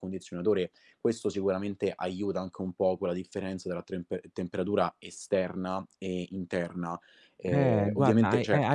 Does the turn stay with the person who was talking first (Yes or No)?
No